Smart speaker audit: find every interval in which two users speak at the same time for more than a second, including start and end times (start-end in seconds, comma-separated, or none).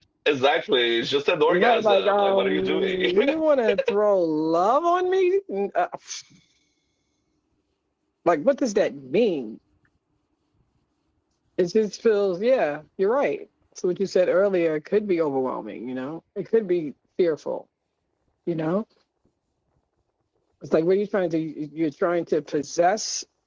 1.5-3.1